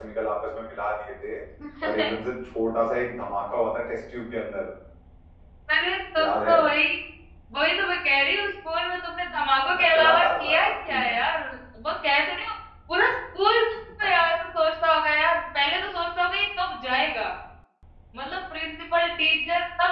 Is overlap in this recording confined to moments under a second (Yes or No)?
No